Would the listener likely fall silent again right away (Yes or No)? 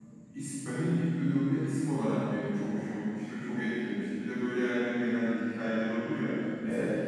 Yes